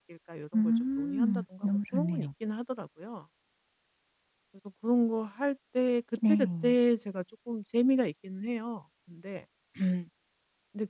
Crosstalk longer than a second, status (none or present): present